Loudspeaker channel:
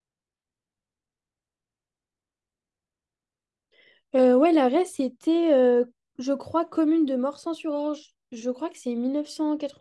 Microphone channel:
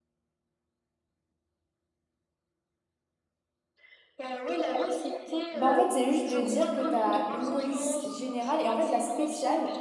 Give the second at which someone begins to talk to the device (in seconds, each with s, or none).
5.5 s